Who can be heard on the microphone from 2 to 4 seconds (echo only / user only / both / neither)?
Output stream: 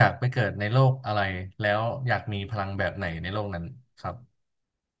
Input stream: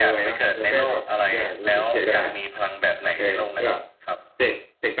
both